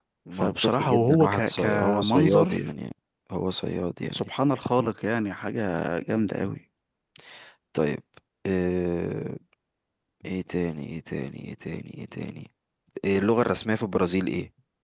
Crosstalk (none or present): present